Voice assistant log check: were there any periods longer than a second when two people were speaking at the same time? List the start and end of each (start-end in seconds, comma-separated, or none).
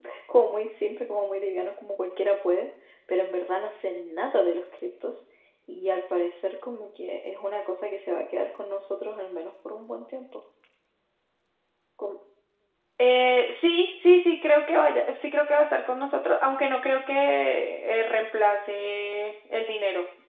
none